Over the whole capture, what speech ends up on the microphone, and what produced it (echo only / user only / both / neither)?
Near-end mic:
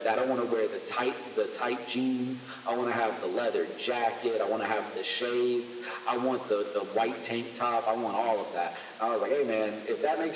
echo only